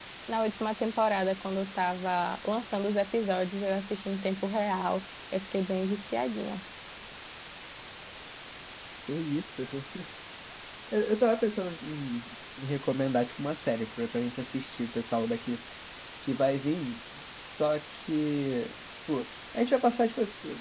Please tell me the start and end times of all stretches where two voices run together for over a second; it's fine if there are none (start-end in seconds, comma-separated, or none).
none